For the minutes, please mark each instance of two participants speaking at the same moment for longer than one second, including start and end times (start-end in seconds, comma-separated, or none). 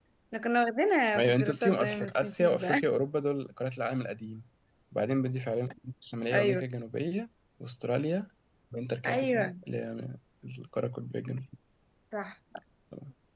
1.1-2.8